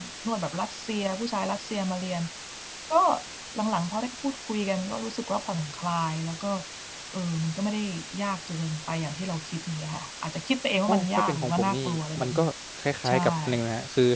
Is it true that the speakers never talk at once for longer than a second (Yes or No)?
No